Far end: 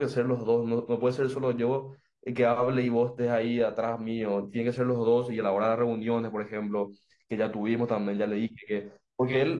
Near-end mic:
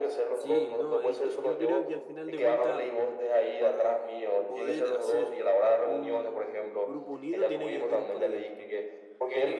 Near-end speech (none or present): present